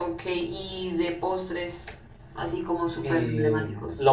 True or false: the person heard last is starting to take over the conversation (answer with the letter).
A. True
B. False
A